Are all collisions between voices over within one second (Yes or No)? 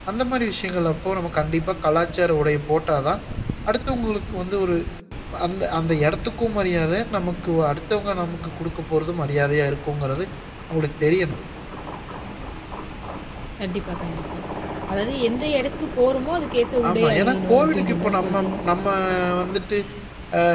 No